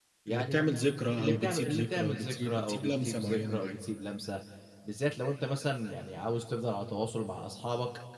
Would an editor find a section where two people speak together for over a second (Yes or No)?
Yes